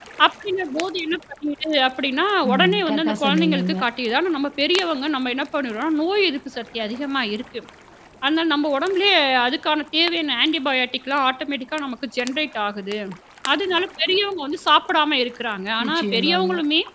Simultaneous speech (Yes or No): Yes